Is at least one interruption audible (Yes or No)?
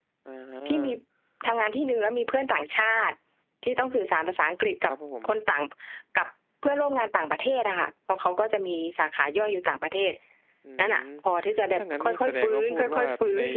Yes